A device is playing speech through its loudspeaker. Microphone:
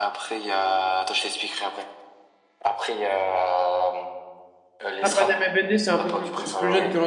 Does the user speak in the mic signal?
Yes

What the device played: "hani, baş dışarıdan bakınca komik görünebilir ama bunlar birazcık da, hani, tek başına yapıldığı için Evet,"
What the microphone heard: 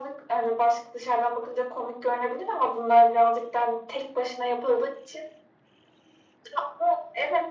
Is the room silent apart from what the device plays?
Yes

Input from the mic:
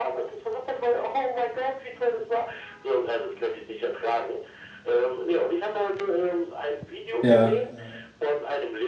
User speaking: Yes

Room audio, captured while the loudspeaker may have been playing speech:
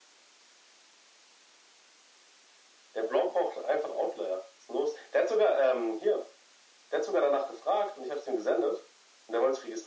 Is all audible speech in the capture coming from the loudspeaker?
Yes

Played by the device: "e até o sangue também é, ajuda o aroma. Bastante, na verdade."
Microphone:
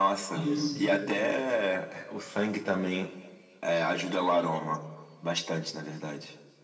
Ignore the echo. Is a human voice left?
Yes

